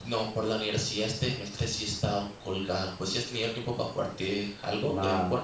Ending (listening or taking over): taking over